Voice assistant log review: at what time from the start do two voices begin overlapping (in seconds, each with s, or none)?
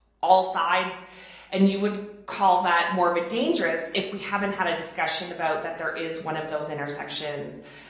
none